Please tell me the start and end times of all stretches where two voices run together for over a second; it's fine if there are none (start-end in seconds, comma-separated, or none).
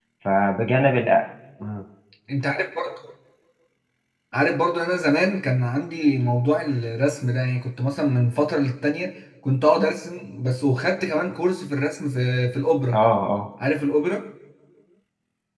none